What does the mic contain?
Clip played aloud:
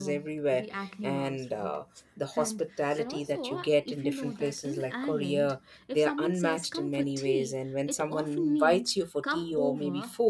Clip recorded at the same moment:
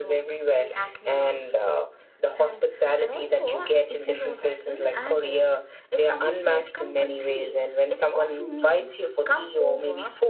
echo only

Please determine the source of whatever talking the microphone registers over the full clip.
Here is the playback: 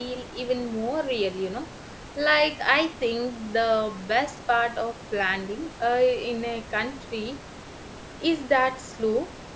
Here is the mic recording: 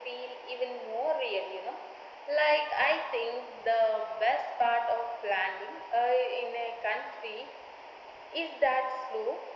echo only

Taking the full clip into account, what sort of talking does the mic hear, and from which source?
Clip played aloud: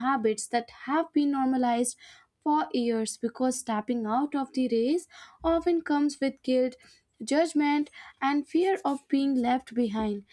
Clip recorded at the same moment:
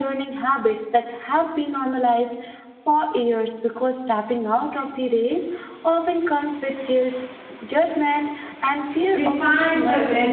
both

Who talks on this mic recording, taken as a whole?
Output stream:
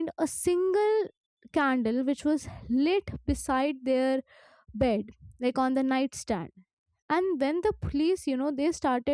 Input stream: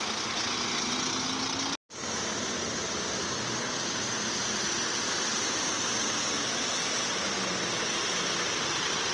neither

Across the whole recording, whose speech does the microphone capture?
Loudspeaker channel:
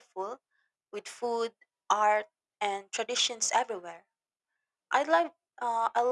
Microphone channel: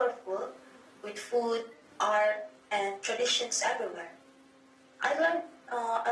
echo only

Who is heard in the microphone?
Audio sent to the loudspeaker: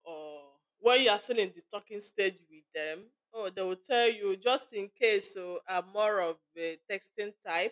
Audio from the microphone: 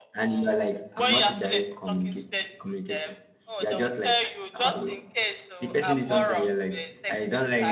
both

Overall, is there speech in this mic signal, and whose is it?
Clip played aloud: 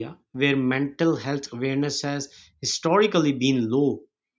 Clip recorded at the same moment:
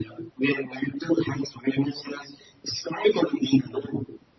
echo only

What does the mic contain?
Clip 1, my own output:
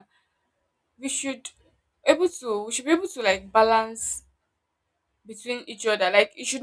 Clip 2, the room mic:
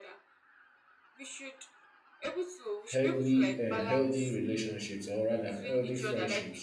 both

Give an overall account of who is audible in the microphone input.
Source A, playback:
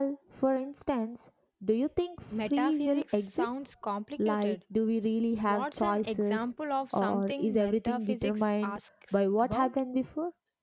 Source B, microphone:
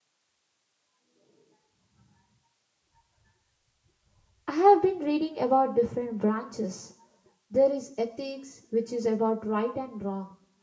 user only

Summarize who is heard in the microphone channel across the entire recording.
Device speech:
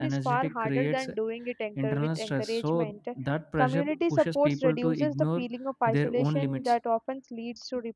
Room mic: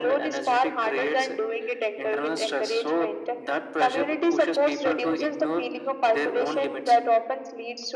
echo only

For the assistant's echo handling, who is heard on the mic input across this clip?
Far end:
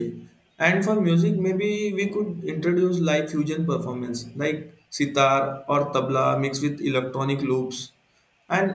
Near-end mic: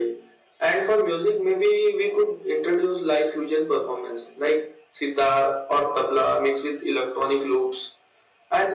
echo only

